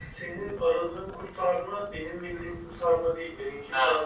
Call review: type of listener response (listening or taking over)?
listening